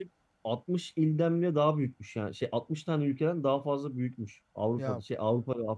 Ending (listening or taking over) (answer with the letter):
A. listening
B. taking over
A